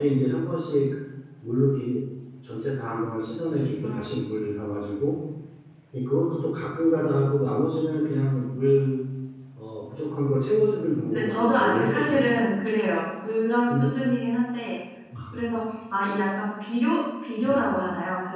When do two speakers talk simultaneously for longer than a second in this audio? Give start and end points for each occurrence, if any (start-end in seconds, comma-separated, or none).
11.0-12.3